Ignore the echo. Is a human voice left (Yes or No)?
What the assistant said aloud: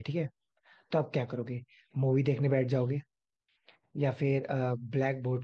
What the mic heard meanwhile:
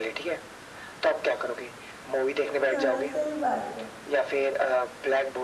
Yes